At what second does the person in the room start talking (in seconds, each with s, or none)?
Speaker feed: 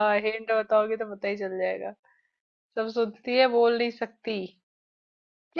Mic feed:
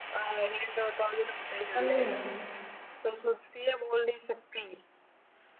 1.6 s